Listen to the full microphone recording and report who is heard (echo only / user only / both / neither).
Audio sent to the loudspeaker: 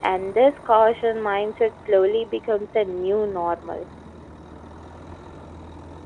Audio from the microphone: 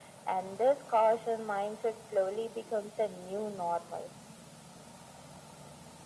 echo only